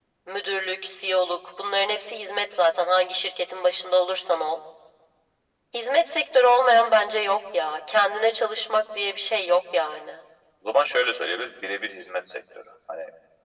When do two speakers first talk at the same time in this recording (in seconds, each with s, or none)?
none